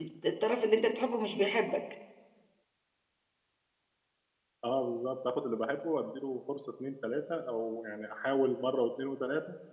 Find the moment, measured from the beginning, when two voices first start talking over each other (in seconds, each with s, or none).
none